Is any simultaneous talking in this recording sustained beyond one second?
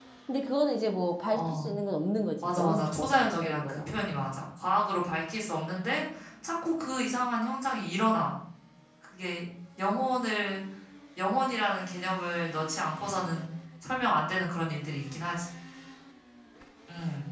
Yes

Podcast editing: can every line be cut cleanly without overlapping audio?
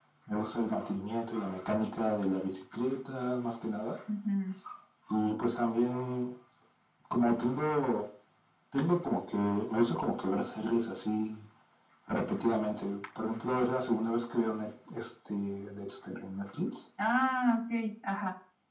Yes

